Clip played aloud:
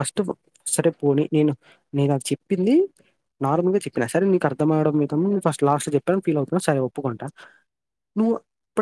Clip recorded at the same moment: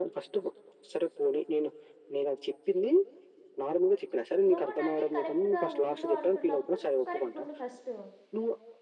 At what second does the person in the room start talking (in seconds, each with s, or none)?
4.5 s